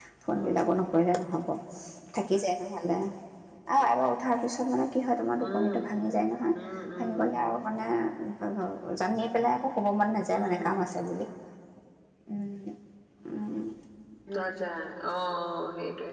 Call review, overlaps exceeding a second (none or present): none